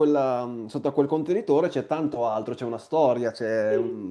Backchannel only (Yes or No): Yes